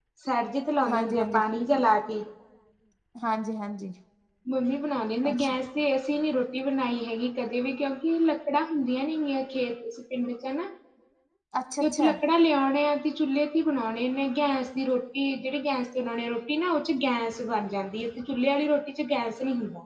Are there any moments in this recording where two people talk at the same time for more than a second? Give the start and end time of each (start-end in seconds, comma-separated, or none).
none